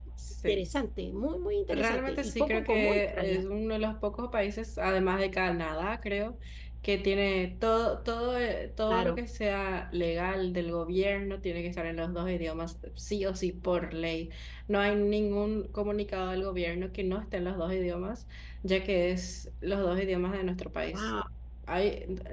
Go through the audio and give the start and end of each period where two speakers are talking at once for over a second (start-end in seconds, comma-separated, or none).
1.7-3.4